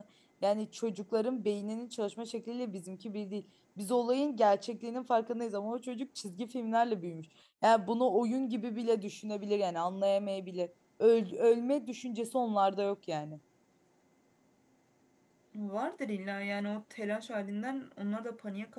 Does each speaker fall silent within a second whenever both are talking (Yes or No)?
Yes